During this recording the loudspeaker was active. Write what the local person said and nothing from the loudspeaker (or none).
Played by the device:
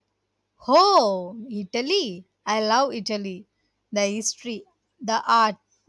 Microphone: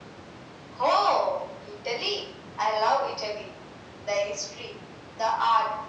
none